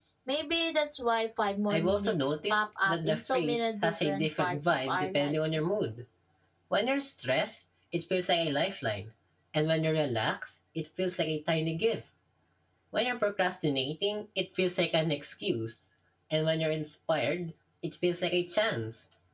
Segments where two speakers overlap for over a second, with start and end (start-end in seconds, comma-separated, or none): 1.7-5.3